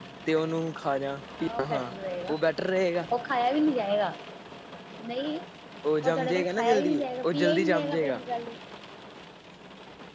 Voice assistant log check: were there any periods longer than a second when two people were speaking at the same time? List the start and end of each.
6.0-8.2

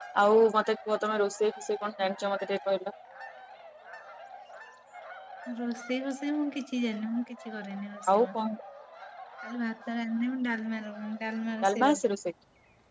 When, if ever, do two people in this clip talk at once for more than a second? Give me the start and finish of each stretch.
none

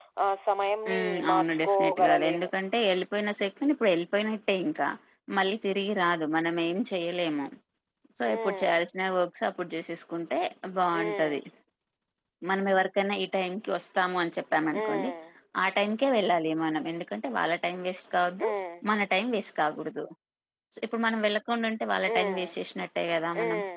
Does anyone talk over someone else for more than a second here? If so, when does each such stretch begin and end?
0.9-2.5

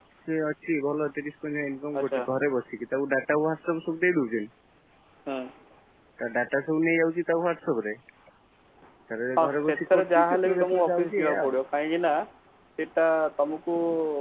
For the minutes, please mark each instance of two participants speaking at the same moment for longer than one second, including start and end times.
9.4-11.5

